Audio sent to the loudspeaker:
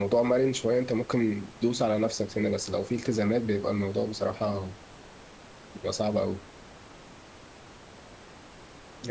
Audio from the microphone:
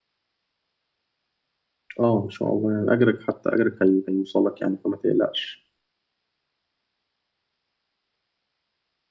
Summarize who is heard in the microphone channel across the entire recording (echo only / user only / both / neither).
user only